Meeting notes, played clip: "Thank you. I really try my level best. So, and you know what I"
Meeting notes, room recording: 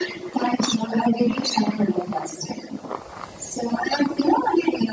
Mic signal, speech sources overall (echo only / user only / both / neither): echo only